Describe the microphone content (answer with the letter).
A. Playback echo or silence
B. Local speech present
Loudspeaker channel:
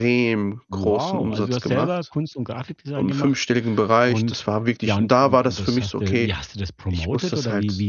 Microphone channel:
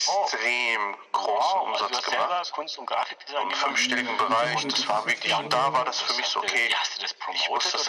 B